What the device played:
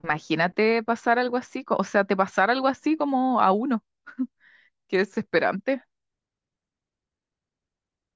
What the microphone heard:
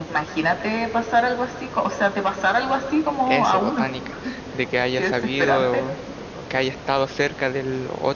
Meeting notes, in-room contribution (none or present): present